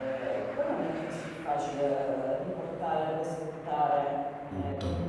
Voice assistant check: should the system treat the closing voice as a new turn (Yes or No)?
No